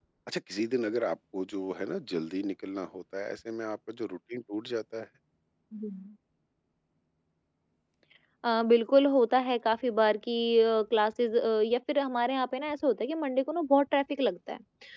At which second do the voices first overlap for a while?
none

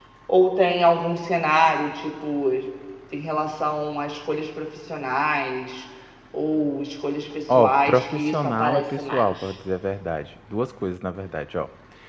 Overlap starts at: 7.5 s

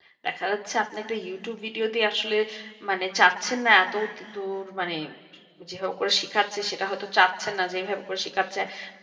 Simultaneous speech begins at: none

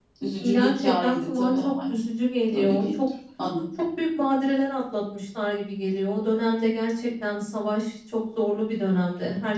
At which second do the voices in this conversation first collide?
0.5 s

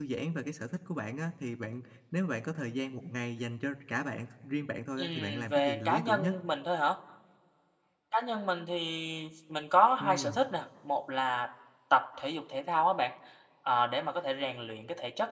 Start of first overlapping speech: 5.0 s

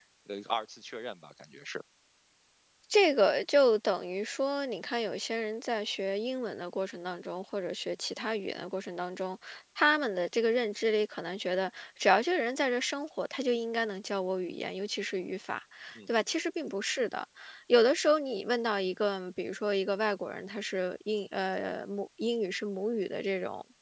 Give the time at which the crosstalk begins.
none

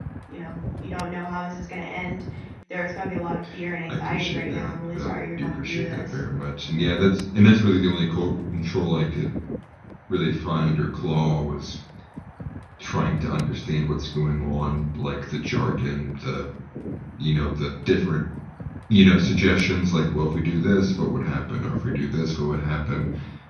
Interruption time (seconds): 3.8 s

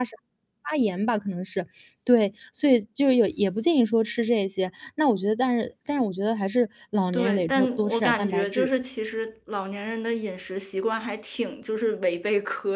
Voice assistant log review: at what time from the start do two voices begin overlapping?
7.1 s

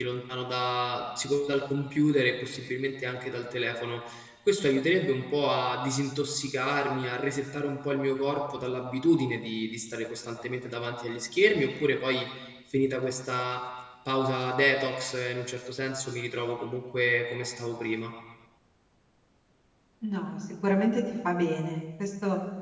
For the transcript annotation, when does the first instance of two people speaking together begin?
none

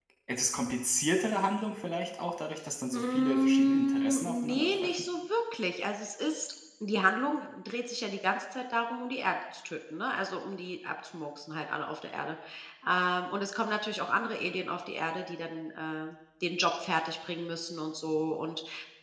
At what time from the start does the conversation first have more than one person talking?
2.9 s

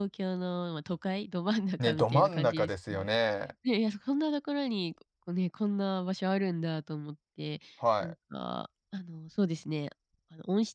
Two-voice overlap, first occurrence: 1.8 s

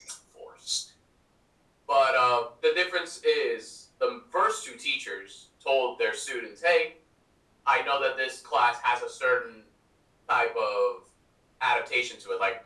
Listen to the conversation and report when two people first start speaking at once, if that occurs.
none

